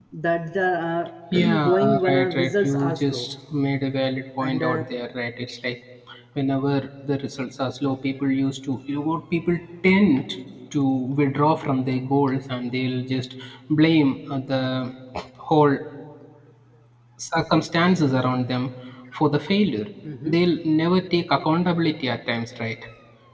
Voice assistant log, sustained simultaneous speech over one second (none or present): present